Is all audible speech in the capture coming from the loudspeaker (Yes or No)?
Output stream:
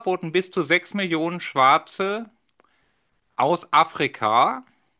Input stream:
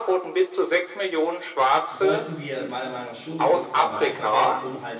No